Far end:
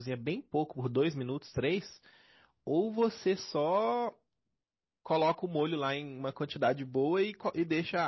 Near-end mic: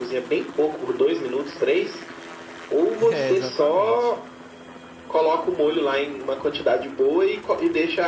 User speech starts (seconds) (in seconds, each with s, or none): 3.0 s